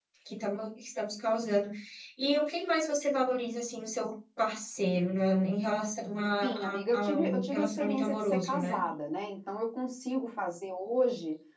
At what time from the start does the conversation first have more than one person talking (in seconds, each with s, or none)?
6.4 s